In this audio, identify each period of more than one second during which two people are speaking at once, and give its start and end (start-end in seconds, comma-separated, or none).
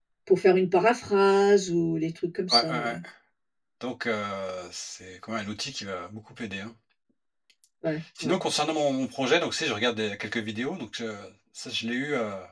none